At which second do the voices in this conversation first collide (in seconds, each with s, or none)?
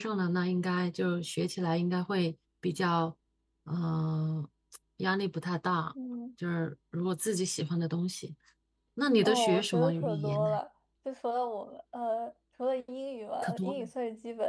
9.2 s